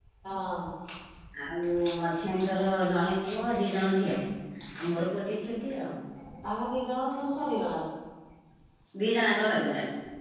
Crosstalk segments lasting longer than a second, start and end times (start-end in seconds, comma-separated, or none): none